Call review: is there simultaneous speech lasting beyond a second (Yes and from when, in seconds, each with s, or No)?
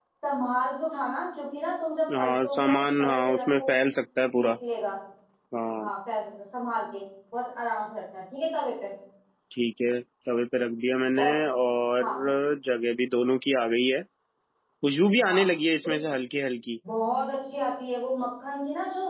Yes, from 2.2 s